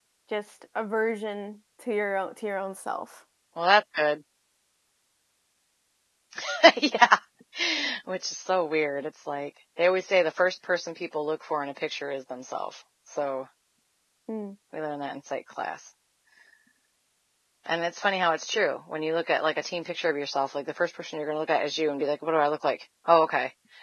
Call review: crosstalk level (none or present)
none